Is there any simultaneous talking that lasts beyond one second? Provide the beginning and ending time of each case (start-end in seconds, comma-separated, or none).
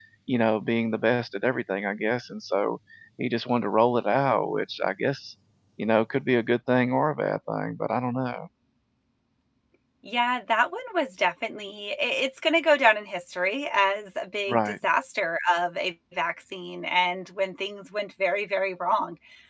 none